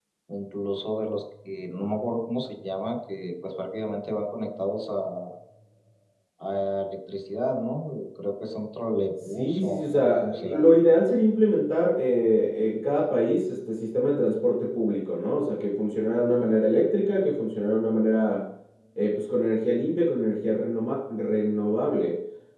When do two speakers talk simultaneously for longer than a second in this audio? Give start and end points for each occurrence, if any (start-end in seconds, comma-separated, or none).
9.2-10.7